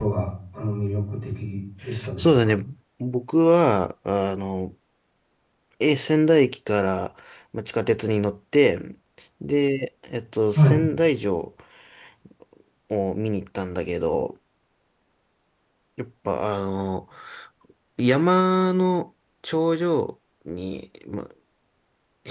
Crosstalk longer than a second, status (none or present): none